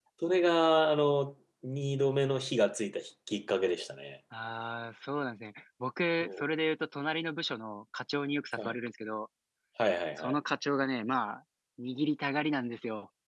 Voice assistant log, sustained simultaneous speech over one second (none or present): none